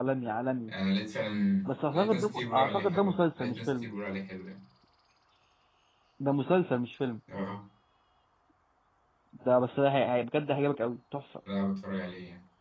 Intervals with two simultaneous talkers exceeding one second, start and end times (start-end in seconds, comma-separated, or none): 1.7-3.9